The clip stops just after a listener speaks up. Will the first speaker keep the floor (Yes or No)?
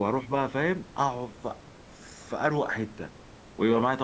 Yes